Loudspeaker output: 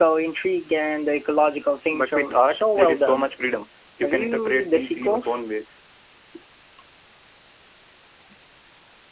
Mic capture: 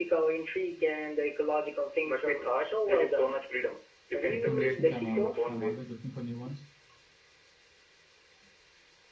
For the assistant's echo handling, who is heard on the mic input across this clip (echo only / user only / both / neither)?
both